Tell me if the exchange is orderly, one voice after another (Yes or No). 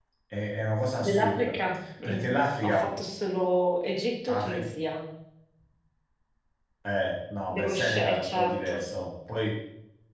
No